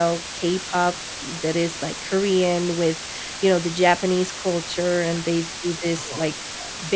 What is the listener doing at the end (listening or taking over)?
listening